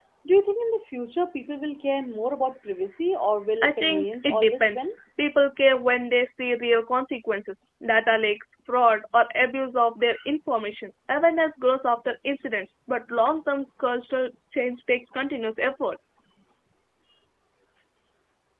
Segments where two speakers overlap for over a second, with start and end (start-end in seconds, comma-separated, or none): 3.6-4.9